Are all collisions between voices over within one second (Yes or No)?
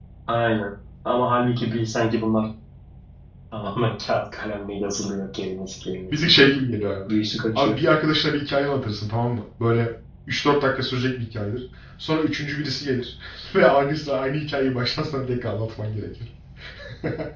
Yes